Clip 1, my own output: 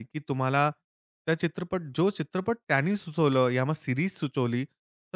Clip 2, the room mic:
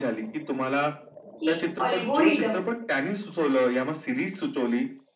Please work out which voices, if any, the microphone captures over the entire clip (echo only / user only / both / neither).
both